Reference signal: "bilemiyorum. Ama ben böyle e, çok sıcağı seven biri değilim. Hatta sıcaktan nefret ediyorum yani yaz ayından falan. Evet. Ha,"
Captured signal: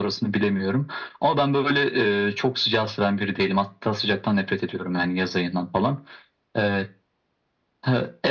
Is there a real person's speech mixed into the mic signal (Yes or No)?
No